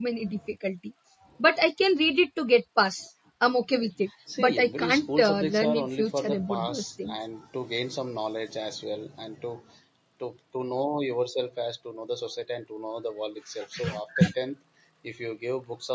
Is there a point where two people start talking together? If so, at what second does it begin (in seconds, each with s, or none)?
4.4 s